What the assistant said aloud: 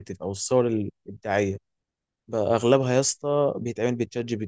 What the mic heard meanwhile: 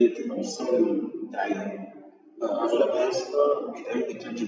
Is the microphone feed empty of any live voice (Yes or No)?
Yes